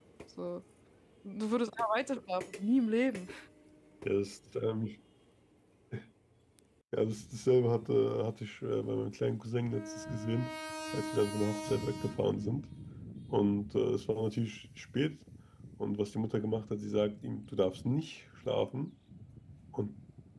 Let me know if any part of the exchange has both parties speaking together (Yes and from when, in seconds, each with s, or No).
No